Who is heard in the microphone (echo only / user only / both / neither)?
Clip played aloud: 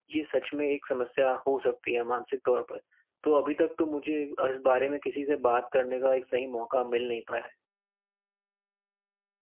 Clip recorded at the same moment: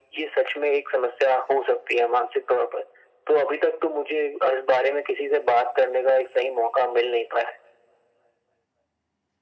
echo only